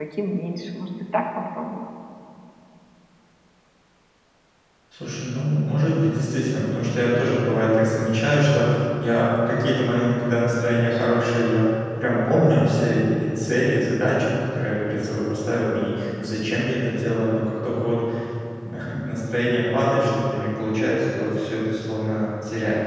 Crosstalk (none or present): none